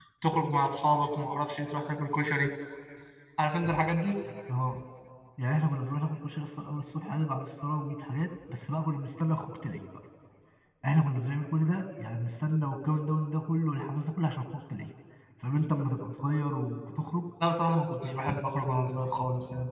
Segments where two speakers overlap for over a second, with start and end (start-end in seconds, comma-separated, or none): none